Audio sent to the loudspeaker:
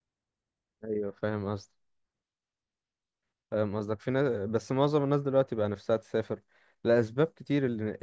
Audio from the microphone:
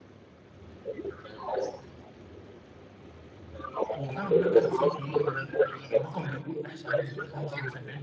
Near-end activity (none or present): present